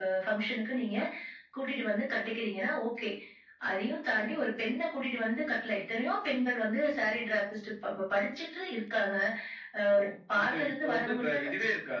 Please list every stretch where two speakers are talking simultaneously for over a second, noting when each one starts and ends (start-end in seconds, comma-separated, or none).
10.0-11.5